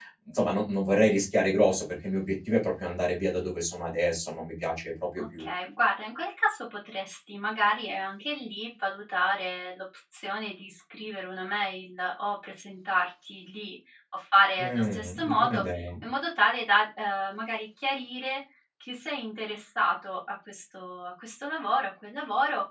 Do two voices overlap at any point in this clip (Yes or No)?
Yes